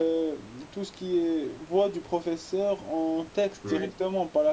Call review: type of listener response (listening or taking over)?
listening